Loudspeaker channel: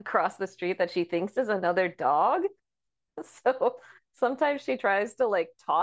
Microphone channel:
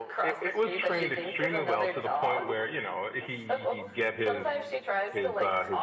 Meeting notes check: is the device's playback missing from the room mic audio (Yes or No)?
No